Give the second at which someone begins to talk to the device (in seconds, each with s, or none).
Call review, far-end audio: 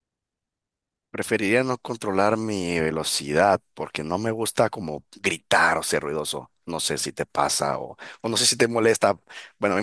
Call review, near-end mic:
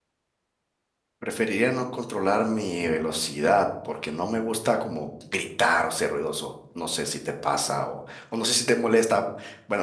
none